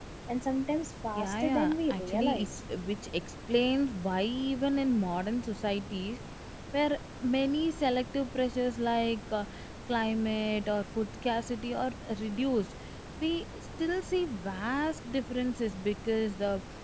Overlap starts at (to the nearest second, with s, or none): 1 s